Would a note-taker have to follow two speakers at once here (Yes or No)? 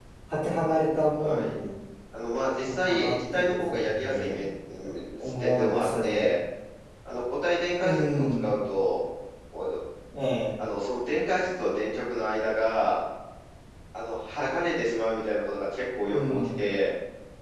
Yes